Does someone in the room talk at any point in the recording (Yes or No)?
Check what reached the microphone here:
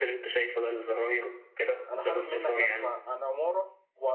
Yes